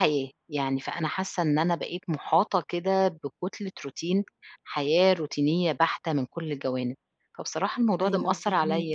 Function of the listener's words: listening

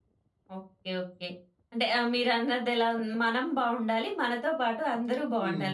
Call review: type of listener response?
taking over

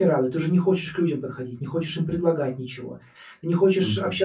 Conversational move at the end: listening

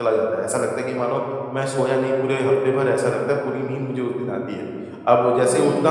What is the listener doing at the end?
listening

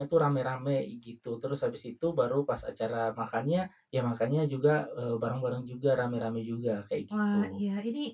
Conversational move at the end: taking over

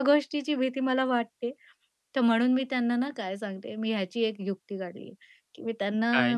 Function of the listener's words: listening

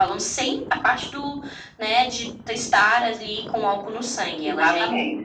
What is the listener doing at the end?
listening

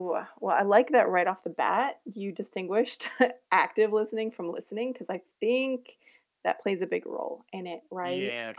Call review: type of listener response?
taking over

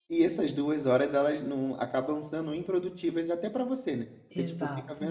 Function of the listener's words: listening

